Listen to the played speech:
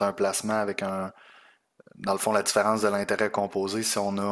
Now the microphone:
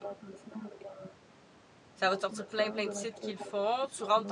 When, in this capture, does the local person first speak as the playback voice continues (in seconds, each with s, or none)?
1.9 s